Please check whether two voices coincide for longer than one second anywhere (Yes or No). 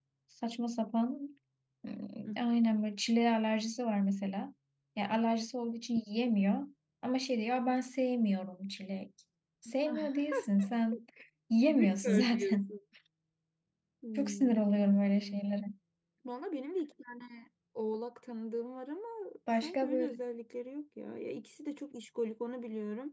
Yes